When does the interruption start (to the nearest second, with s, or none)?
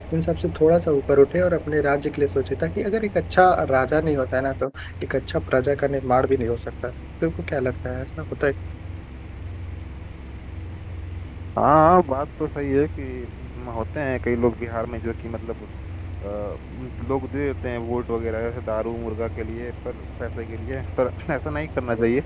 none